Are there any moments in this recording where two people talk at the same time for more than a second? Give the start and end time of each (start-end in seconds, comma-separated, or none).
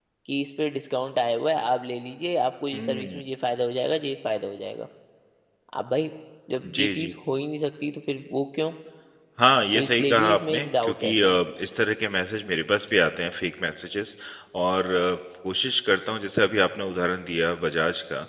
9.7-11.4